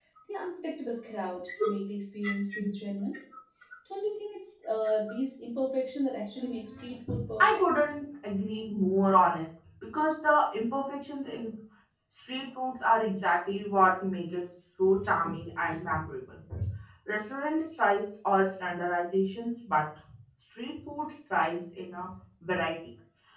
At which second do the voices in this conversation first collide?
6.4 s

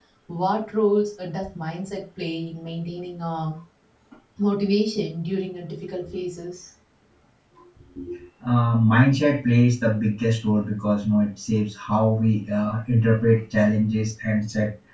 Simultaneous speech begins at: none

